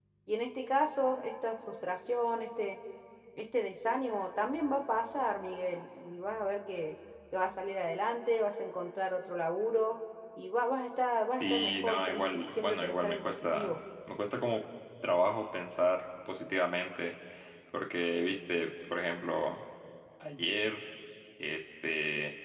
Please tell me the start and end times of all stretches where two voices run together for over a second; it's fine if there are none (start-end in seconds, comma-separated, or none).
11.4-13.7